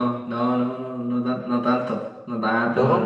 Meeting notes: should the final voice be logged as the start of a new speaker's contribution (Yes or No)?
No